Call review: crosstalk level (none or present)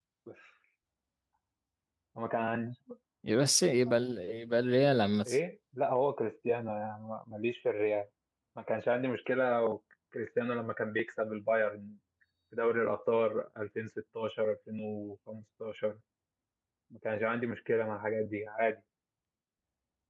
none